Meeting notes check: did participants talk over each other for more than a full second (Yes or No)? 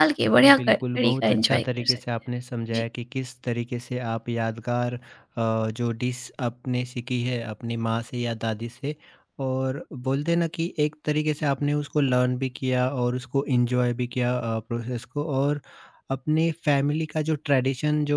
Yes